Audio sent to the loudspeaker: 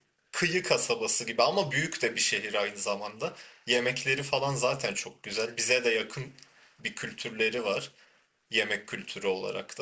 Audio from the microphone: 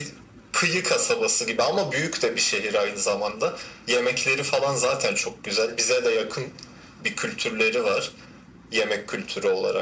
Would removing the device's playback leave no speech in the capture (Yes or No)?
Yes